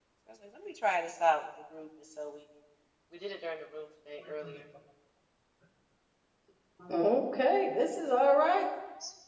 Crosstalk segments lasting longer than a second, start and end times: none

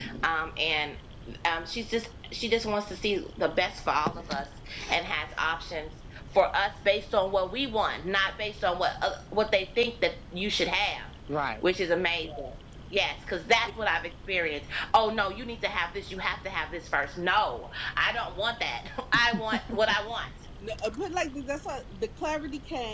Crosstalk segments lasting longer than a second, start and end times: none

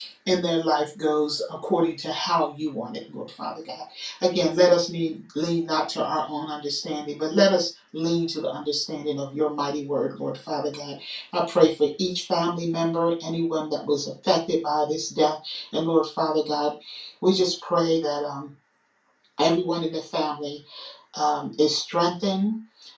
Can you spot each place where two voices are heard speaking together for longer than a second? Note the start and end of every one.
none

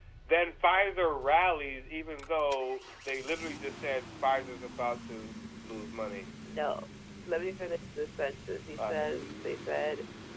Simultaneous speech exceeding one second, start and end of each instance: none

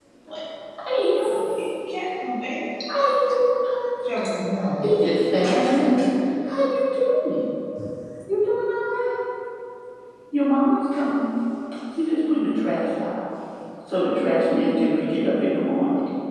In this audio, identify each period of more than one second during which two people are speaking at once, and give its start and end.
none

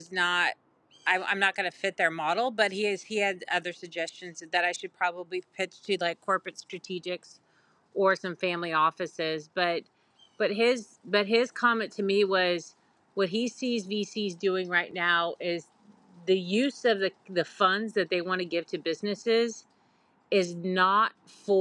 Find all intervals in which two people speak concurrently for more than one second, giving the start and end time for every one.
none

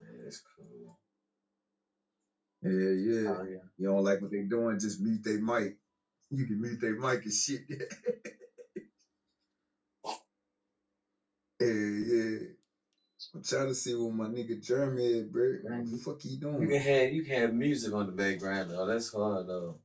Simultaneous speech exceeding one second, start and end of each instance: none

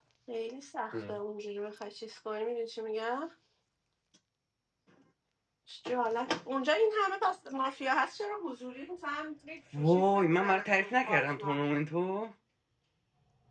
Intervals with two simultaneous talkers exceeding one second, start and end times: 9.8-11.6

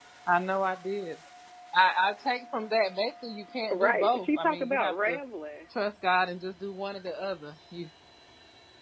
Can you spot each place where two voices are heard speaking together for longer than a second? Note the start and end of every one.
3.7-5.2

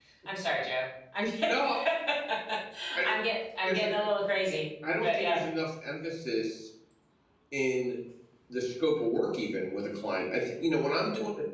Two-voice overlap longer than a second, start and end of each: none

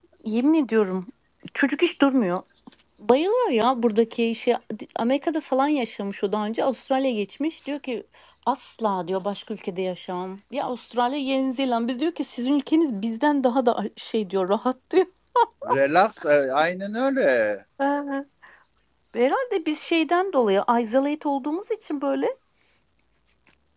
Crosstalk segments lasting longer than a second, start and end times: none

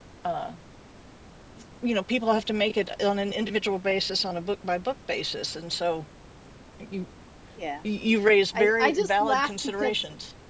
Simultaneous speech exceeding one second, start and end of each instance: 8.5-9.9

